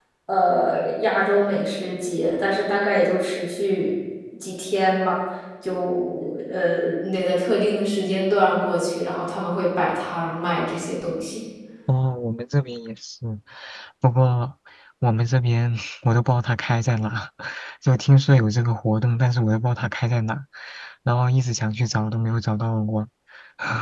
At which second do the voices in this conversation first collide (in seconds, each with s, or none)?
none